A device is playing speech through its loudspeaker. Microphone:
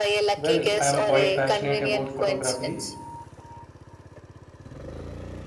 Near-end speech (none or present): present